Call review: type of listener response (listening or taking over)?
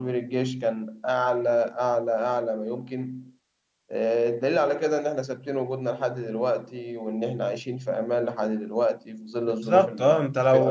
taking over